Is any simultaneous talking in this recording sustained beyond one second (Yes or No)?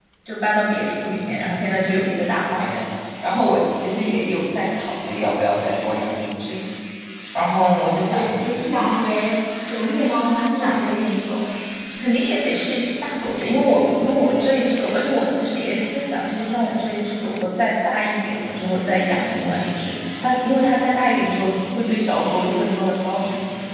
No